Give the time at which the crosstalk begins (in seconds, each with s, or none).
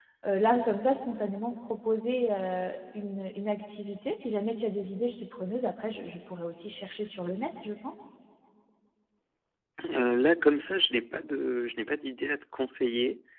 none